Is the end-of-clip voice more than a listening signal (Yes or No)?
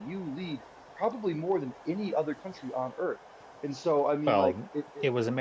Yes